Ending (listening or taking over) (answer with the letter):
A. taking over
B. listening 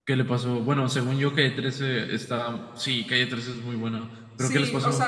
A